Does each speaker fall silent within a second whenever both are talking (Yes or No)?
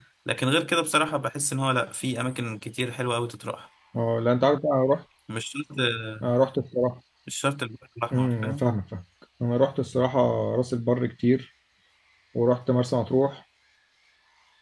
Yes